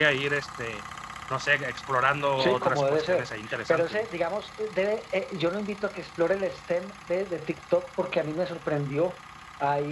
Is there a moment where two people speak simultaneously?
Yes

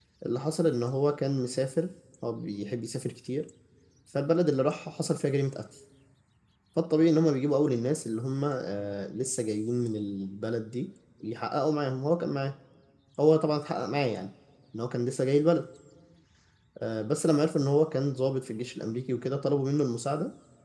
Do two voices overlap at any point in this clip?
No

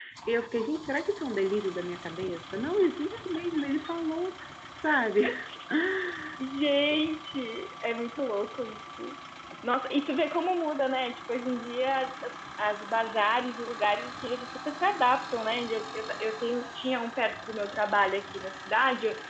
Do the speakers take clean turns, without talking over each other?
Yes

